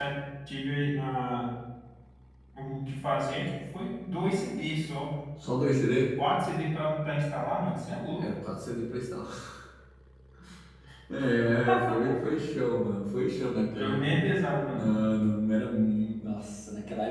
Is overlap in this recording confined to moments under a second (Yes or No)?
Yes